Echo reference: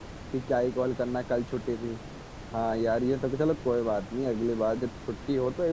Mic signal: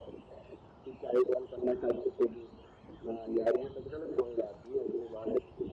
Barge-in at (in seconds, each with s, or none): none